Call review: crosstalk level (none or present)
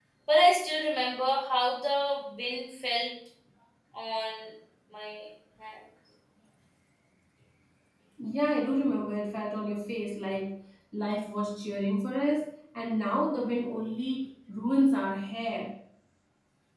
none